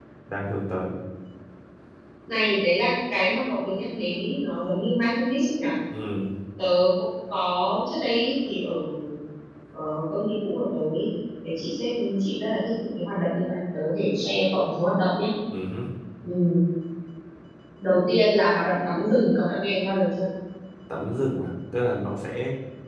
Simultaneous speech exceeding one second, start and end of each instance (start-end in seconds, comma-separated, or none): none